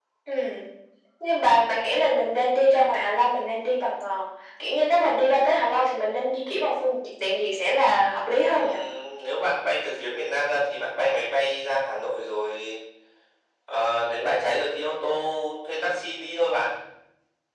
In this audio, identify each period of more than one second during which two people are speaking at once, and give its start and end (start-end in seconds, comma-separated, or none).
none